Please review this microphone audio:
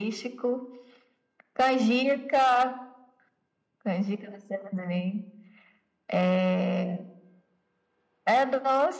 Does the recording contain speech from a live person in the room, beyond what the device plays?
No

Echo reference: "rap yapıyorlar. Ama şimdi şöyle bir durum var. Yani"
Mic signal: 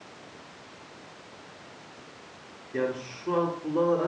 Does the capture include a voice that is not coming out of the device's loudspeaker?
Yes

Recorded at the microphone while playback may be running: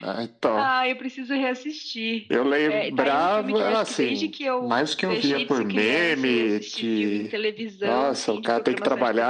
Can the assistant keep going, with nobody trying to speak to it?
Yes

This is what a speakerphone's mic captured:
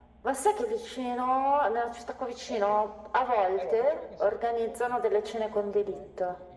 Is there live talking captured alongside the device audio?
Yes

